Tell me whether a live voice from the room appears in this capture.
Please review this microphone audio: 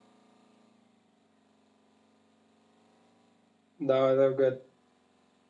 Yes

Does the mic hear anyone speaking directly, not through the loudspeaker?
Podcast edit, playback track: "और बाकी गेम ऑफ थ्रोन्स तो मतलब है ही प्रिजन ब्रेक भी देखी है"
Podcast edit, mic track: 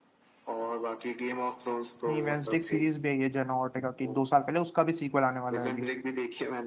Yes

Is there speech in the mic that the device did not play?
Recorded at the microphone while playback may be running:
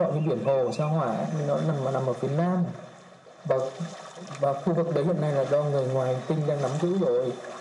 No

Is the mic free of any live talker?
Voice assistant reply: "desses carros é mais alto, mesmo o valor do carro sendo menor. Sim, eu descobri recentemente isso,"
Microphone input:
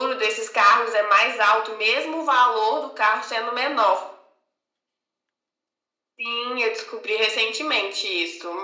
Yes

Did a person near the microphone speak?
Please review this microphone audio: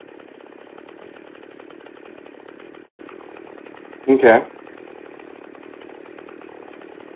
Yes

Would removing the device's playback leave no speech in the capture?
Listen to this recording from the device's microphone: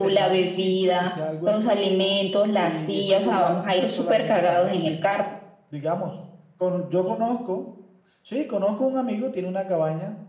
Yes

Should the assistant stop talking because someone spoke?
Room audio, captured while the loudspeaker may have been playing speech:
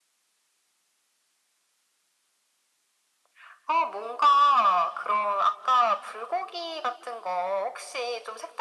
No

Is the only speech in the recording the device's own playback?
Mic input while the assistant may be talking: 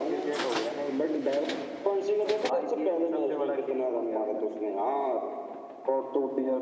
Yes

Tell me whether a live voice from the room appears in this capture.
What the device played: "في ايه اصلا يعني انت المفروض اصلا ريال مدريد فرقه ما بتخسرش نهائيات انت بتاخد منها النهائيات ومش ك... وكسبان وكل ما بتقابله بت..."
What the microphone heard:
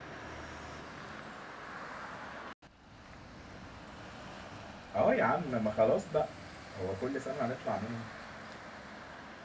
Yes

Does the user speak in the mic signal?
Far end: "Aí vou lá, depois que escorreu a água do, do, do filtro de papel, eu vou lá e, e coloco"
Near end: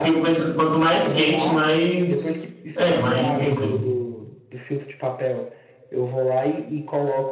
Yes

